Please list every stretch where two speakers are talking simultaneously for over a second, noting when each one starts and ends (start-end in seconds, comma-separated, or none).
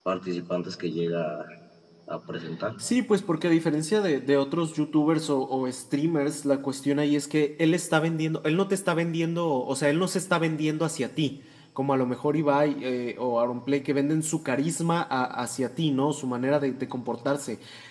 none